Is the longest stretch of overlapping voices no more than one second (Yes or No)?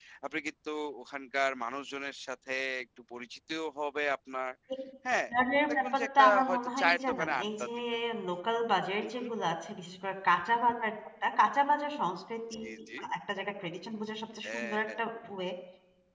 No